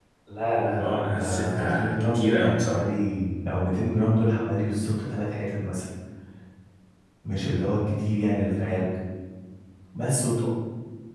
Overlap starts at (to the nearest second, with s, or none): 1 s